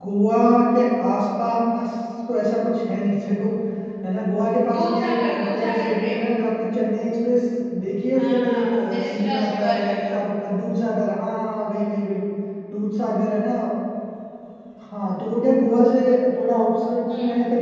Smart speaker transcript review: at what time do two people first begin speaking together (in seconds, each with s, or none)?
4.7 s